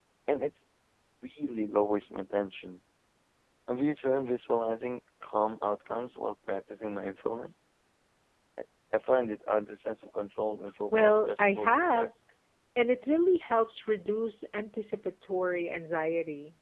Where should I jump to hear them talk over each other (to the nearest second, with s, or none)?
11 s